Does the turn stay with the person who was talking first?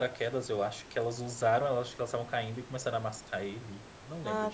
No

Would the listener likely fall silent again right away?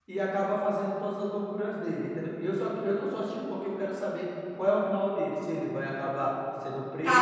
No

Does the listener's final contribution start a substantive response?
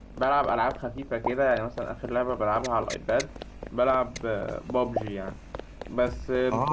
No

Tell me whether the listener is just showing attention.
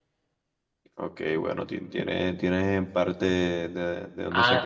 No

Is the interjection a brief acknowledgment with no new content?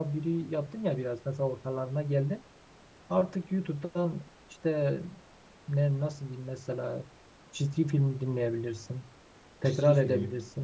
Yes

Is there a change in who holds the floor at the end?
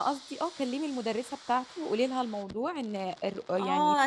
Yes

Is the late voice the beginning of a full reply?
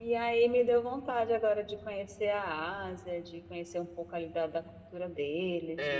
Yes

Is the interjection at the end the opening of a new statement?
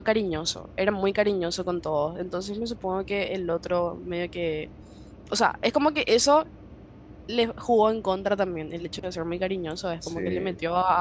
No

